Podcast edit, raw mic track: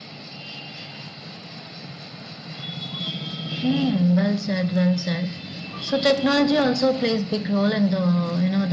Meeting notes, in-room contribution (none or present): none